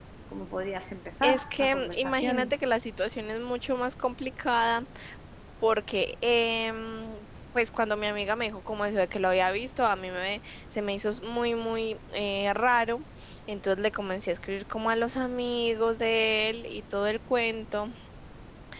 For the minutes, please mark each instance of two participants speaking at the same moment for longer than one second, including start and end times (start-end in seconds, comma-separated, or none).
1.2-2.5